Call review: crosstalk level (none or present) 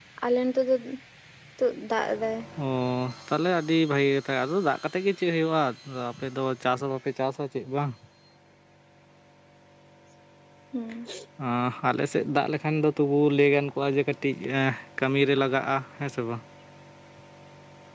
none